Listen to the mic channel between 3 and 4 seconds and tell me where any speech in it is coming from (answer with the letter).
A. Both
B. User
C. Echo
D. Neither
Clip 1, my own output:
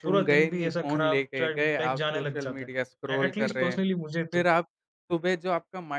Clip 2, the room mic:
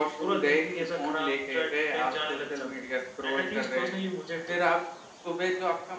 C